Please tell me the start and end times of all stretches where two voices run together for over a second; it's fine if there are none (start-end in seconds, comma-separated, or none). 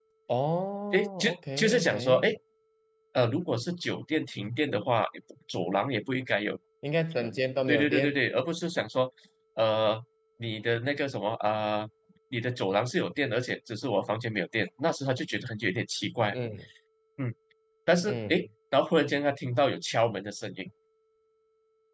0.9-2.3